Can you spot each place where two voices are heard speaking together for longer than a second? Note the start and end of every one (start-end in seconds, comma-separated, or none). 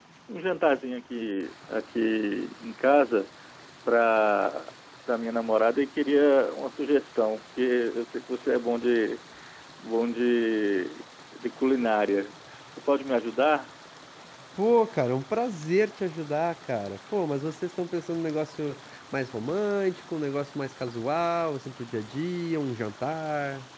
none